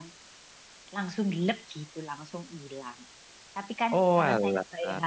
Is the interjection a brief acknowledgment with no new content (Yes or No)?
Yes